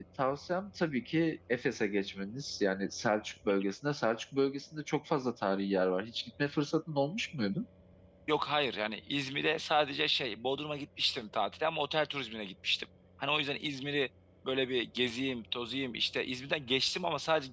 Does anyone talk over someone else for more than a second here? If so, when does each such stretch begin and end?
none

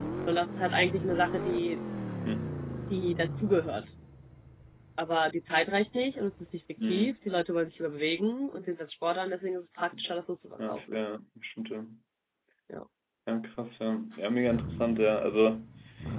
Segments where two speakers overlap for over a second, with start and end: none

